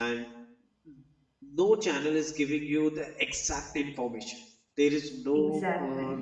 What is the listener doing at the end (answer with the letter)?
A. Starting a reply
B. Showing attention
B